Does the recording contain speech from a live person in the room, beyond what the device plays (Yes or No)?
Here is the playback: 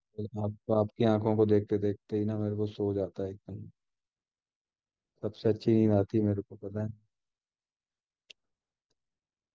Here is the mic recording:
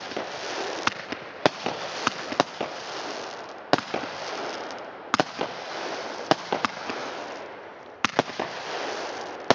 No